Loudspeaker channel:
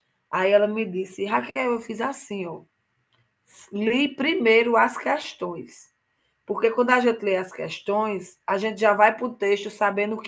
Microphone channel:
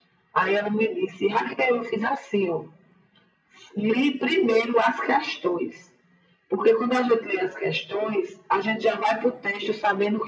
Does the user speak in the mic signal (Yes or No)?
No